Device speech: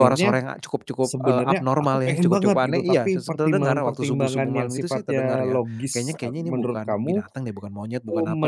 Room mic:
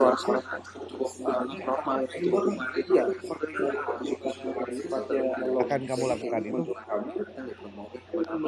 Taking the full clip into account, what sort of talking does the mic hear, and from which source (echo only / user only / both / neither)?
both